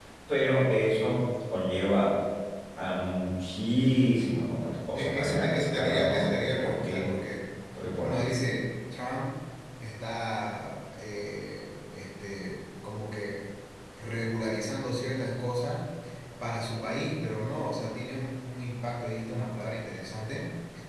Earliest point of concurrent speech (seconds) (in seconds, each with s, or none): 4.9 s